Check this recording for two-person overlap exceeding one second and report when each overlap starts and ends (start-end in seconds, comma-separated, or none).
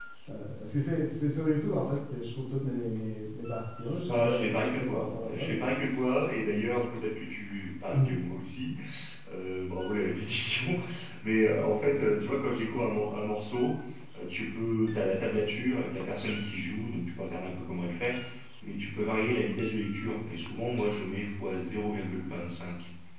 4.1-5.6